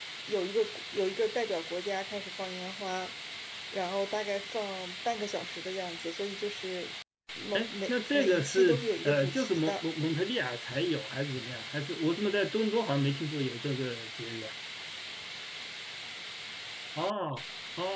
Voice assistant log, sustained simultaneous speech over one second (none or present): present